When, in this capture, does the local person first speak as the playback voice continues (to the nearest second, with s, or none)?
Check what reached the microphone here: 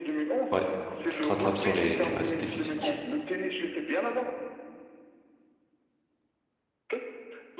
1 s